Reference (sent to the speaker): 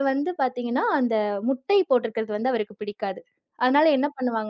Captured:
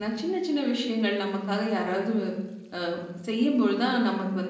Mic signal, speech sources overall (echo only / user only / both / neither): user only